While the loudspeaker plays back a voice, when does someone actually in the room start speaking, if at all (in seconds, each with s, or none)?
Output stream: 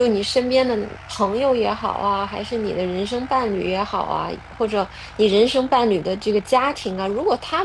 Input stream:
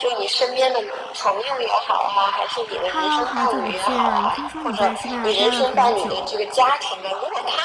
2.8 s